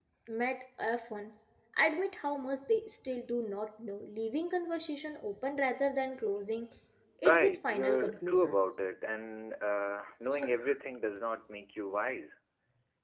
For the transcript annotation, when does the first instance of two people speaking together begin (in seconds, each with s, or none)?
7.2 s